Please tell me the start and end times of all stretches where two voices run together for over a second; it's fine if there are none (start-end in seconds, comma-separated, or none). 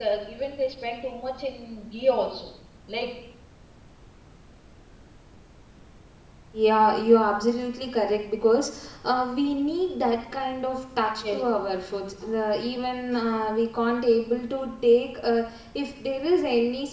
none